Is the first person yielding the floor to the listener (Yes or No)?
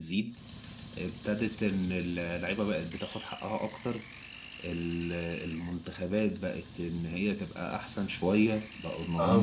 Yes